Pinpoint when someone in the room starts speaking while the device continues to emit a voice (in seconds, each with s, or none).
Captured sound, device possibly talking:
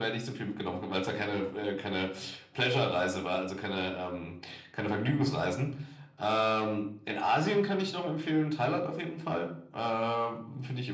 none